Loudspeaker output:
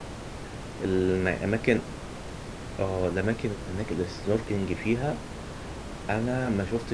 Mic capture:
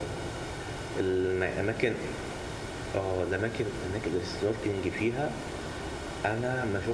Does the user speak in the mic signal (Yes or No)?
No